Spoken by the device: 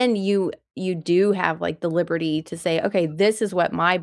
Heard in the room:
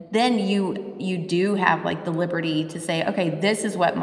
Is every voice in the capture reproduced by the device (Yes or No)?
Yes